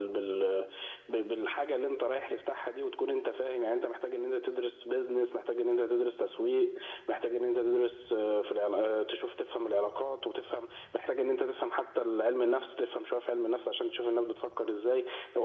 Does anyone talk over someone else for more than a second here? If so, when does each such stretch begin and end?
none

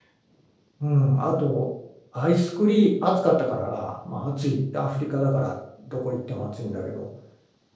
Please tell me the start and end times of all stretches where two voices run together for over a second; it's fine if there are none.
none

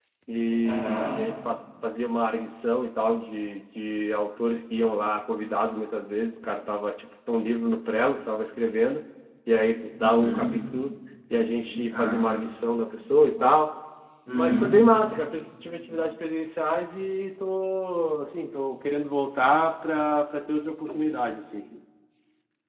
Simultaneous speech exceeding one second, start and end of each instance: none

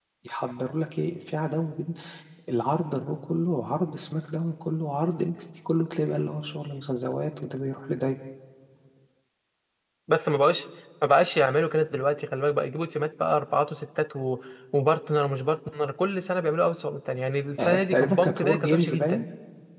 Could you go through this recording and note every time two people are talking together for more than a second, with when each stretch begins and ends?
17.6-19.2

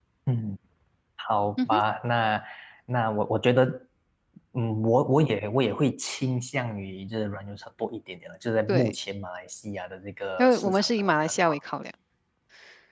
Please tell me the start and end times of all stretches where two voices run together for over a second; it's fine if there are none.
10.4-11.6

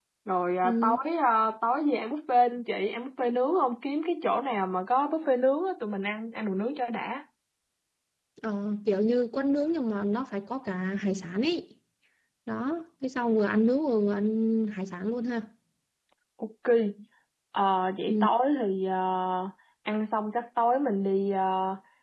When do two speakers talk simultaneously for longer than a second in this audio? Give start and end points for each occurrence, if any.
none

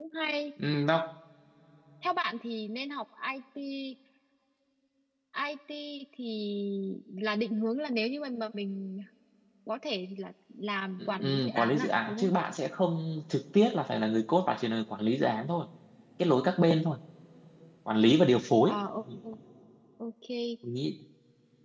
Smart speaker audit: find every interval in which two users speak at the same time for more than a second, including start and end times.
11.0-12.3

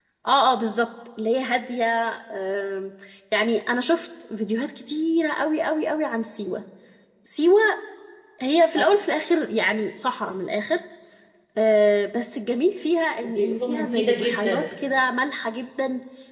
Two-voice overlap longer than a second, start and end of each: 13.2-14.6

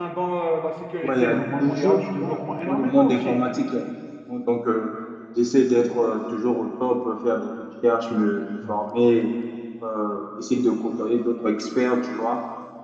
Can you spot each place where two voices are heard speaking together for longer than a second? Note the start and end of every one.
1.0-3.4

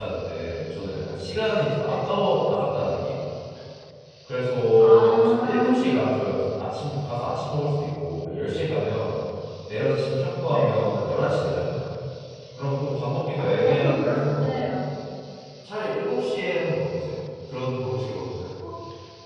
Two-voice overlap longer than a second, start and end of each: 4.8-6.1, 13.4-14.7

